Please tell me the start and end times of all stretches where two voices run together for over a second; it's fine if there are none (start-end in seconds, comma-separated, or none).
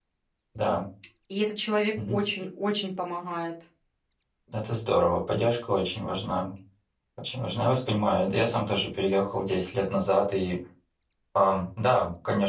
none